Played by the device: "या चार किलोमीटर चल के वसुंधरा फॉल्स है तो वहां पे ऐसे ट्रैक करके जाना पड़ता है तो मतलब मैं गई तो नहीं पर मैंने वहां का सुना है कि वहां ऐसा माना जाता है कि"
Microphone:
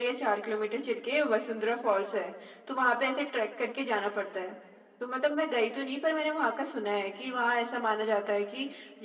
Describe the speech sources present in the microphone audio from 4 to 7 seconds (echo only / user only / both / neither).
echo only